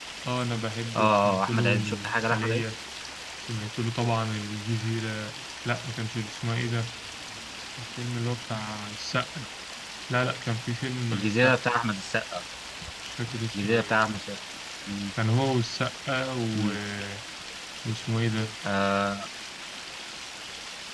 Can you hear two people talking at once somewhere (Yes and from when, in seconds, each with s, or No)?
Yes, from 1.0 s